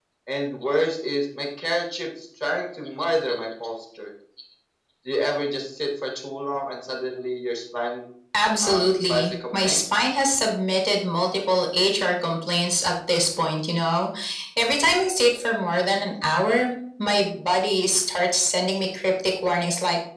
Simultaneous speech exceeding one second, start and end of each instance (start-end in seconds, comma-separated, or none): 8.6-9.8